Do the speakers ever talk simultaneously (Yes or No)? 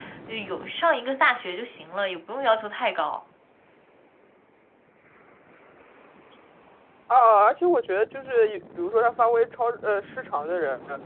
No